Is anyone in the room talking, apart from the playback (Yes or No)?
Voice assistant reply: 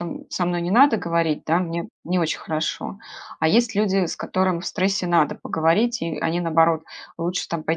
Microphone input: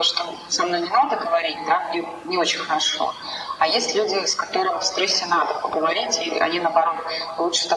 No